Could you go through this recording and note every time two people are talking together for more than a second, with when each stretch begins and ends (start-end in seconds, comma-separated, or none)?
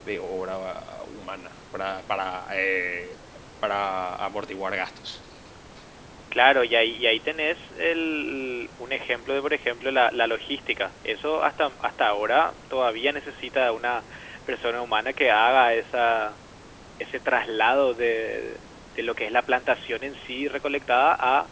none